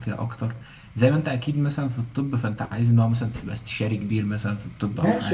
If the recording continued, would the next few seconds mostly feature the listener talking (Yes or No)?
Yes